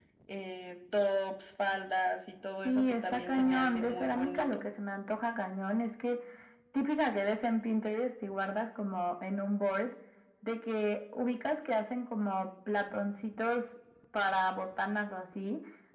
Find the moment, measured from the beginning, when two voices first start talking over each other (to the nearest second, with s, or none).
3 s